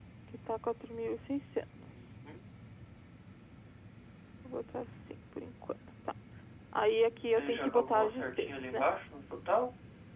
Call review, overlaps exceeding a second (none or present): present